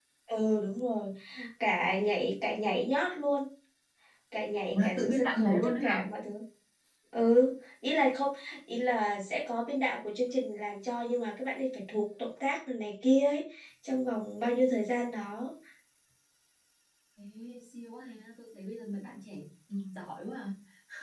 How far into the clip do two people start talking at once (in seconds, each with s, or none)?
4.7 s